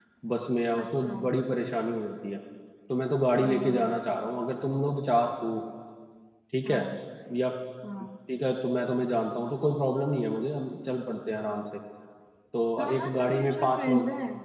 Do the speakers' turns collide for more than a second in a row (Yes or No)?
Yes